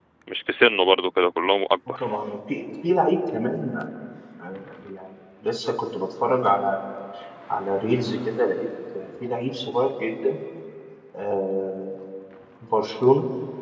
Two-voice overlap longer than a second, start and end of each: none

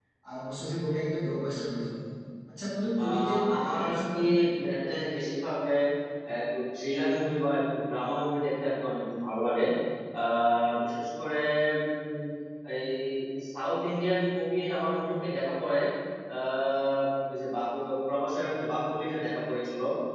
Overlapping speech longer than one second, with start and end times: 3.0-4.2

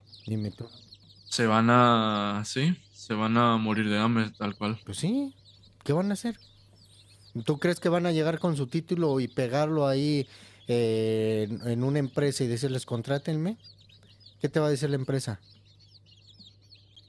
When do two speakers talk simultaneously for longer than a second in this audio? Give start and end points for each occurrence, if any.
none

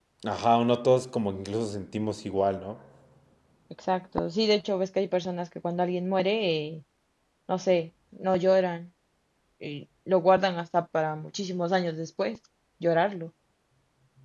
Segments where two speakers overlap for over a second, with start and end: none

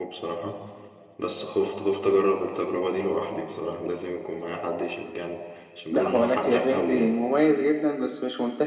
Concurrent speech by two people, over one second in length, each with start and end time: 5.9-7.2

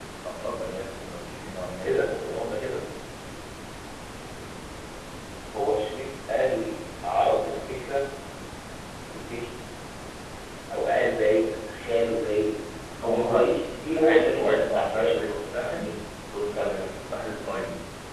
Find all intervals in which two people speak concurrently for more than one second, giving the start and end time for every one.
14.0-15.9

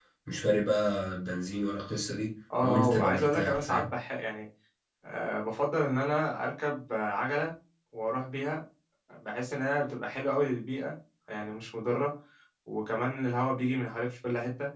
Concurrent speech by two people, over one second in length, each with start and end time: 2.6-3.9

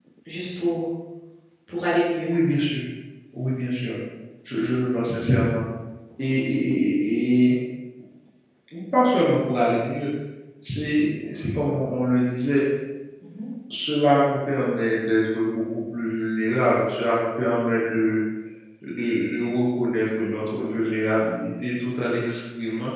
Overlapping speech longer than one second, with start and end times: none

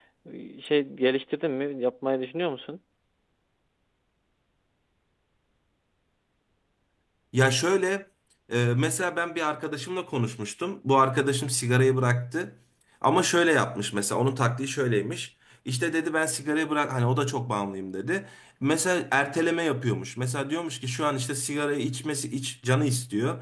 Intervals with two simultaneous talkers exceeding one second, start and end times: none

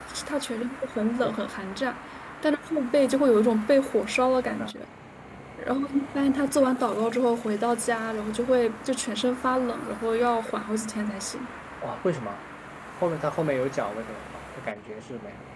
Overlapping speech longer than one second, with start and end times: none

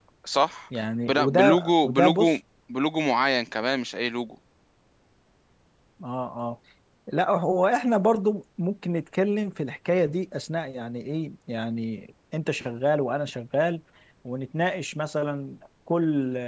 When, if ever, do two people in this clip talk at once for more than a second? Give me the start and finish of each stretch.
1.1-2.4

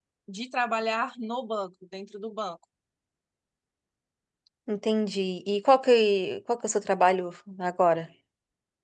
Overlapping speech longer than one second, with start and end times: none

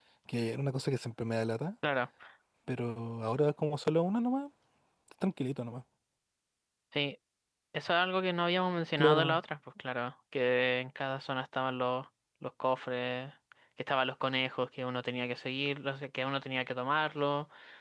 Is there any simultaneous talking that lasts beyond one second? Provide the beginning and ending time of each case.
none

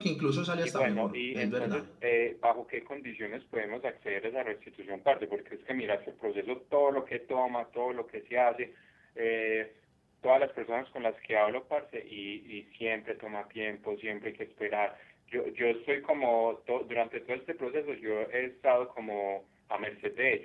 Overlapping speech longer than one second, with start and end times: 0.6-1.8

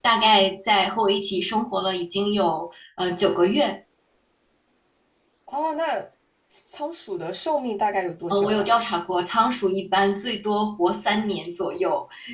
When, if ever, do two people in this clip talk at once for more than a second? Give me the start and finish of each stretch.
none

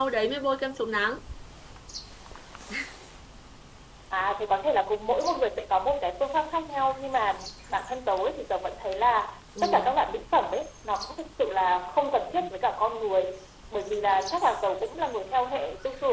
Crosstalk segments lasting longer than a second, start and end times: none

